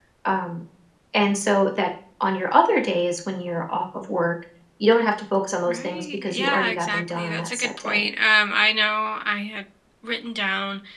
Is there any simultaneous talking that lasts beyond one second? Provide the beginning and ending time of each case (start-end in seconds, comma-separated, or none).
5.7-8.1